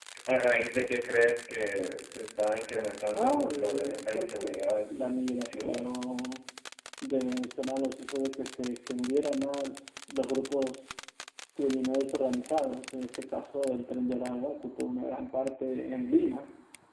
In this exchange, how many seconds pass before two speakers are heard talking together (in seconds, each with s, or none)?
3.1 s